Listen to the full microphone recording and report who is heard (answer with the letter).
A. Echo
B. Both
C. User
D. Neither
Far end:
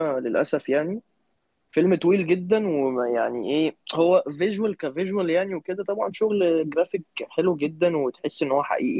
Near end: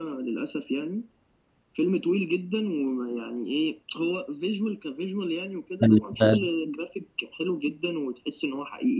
B